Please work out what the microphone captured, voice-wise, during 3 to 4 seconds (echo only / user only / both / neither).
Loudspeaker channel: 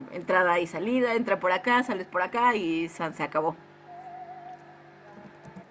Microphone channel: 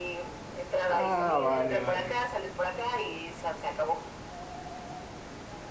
echo only